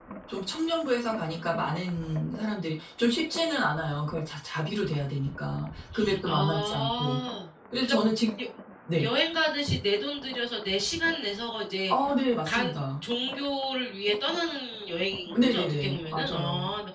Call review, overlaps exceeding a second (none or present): present